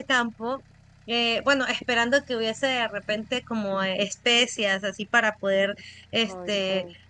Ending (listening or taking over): listening